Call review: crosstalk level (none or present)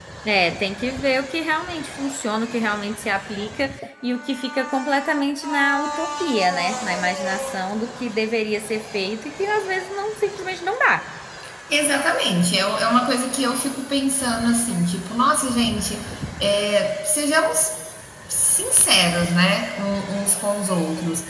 none